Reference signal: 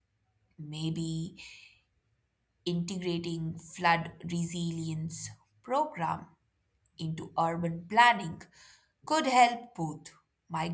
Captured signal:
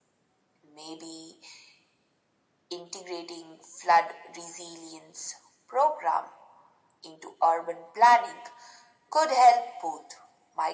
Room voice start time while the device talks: none

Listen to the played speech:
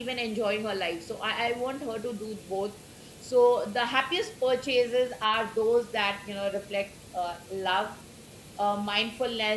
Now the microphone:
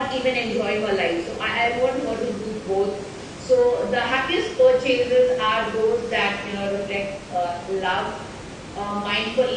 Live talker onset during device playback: none

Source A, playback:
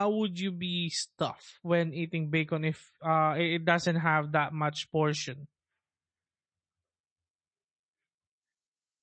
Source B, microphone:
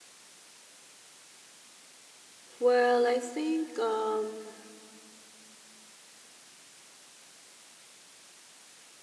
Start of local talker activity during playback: 2.6 s

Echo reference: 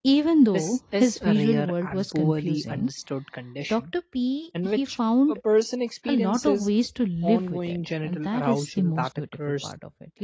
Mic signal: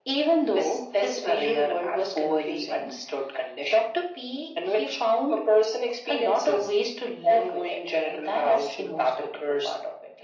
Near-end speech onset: none

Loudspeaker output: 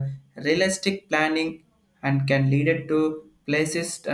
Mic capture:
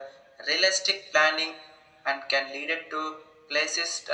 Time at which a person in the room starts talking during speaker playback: none

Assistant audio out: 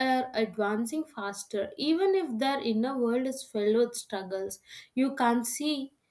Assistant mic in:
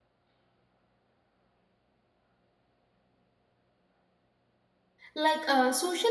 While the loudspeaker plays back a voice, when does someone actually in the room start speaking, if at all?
5.1 s

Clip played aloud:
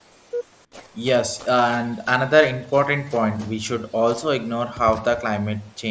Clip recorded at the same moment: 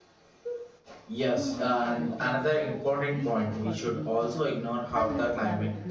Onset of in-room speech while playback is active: 1.3 s

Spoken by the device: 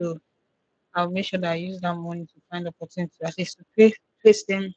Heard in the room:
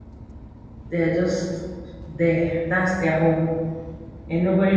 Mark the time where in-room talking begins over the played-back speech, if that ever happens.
0.9 s

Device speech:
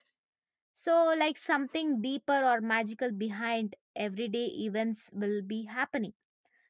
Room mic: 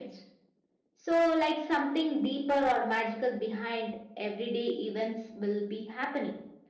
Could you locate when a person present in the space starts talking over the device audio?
none

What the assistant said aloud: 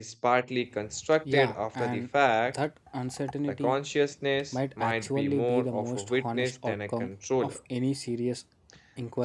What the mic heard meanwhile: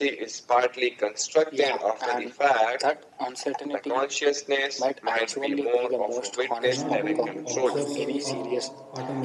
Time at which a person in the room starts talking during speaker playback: 6.6 s

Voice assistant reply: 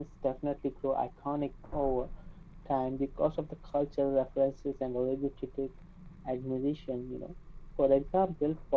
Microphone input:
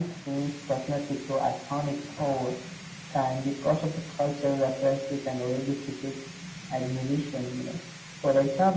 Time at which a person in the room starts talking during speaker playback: none

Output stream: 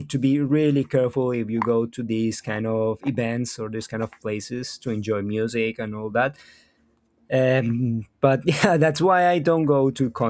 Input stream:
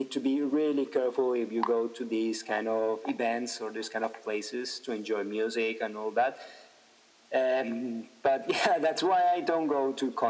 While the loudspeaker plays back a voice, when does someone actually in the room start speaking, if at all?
none

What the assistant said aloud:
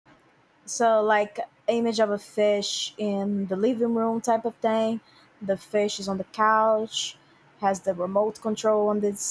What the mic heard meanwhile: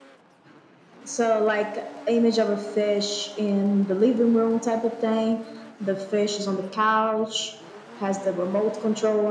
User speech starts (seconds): none

